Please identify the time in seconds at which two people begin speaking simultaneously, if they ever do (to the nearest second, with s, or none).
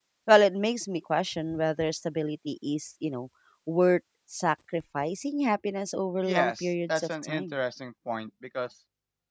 6 s